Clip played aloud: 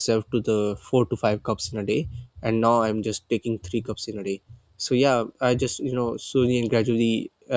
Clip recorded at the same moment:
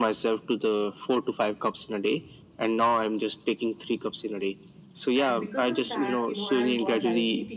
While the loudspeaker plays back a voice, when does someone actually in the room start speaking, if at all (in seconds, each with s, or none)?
5.2 s